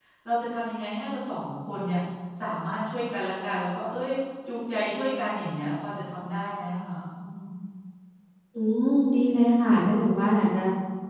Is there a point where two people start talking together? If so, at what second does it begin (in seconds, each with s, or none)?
none